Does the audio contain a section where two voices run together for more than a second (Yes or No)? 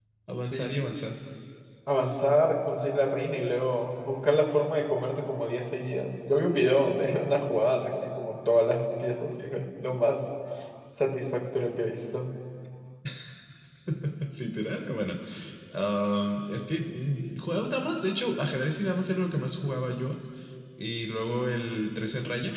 No